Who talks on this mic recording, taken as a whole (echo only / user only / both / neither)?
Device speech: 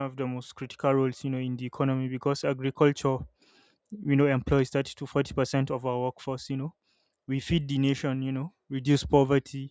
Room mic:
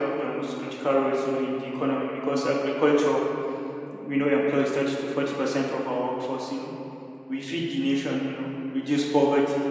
echo only